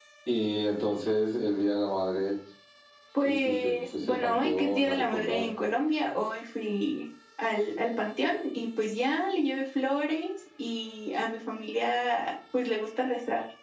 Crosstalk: present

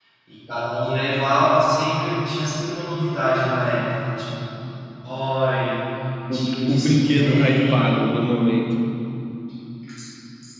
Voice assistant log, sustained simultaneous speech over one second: present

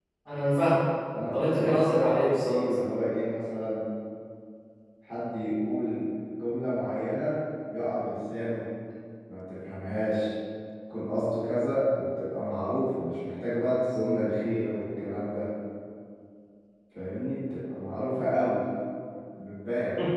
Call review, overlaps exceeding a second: present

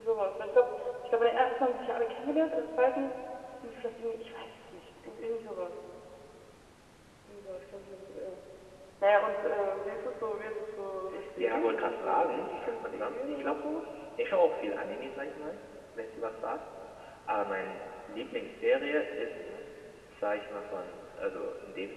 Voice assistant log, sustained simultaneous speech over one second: present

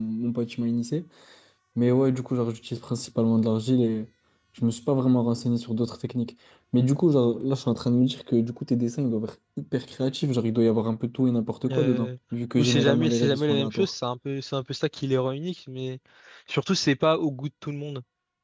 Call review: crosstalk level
present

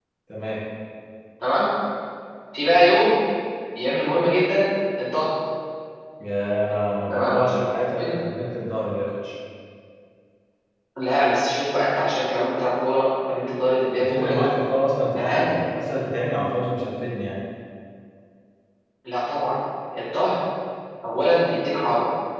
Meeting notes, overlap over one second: none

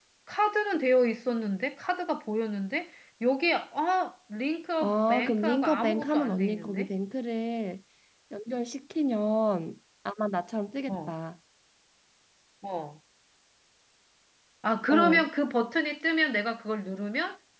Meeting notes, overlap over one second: present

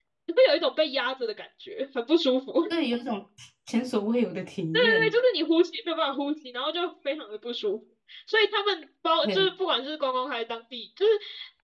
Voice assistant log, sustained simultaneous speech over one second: none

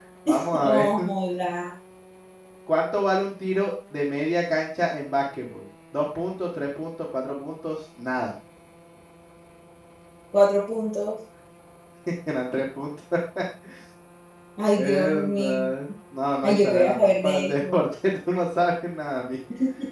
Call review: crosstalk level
present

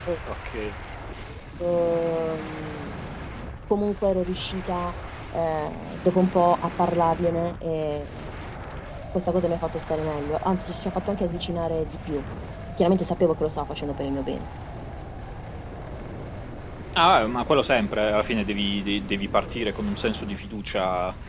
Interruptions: none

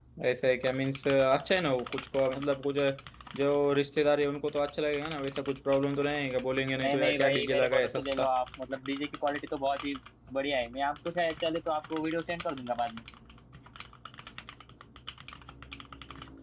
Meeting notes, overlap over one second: present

